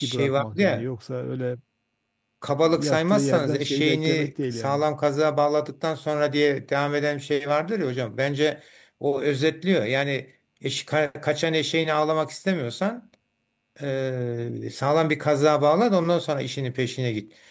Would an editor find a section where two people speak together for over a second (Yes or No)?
Yes